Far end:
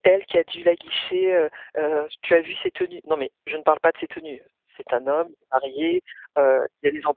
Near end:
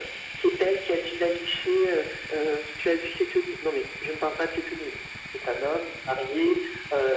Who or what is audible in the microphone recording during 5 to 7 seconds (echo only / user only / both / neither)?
echo only